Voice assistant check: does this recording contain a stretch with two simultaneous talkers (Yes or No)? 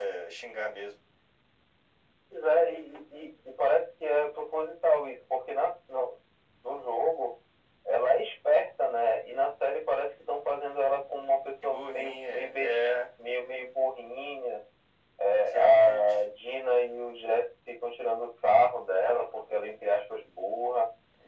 Yes